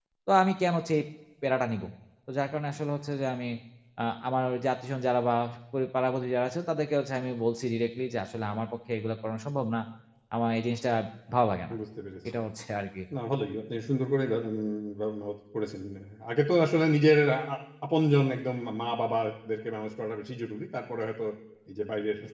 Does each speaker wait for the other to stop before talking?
Yes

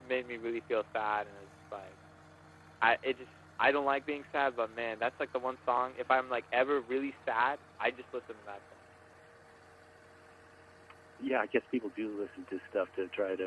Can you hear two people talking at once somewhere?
No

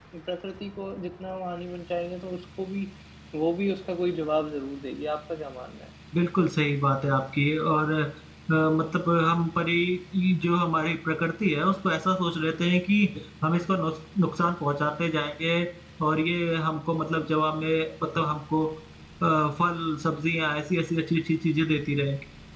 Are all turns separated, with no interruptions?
Yes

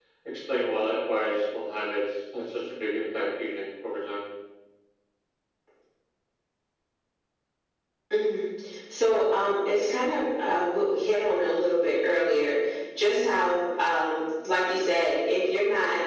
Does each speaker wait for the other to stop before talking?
Yes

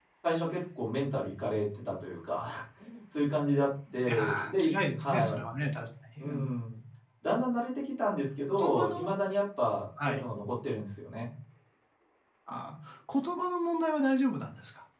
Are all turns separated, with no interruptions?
No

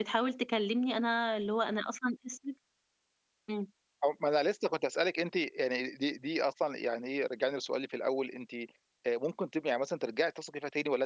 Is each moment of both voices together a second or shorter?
Yes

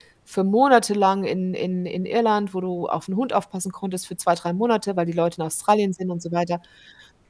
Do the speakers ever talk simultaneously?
No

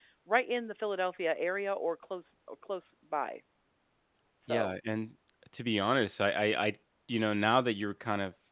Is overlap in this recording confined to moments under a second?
Yes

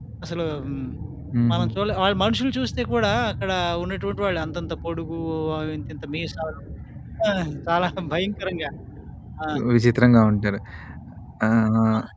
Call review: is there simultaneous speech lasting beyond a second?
No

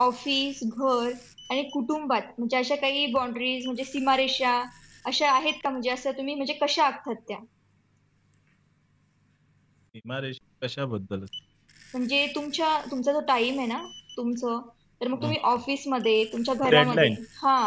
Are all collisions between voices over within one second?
Yes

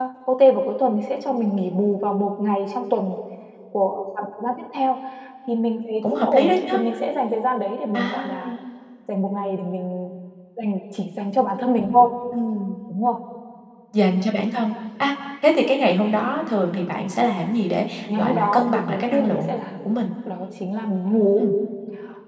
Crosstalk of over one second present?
Yes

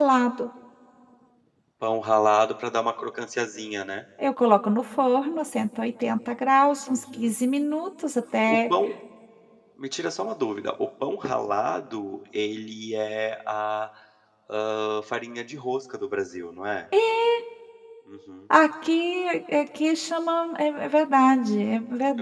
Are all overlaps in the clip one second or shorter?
Yes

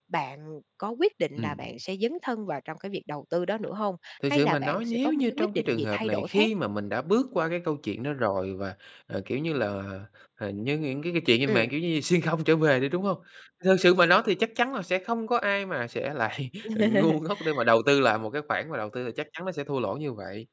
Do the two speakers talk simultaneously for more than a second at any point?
Yes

